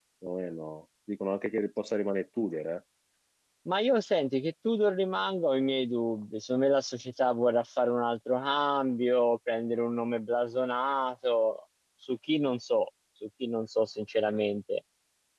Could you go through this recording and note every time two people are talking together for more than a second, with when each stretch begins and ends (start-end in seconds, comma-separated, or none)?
none